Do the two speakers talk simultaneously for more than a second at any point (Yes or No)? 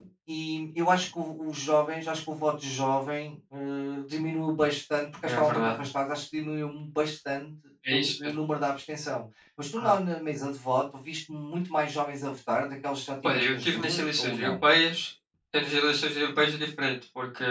Yes